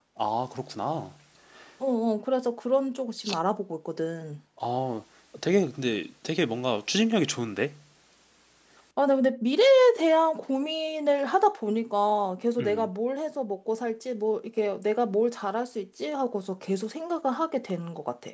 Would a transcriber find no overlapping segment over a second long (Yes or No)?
Yes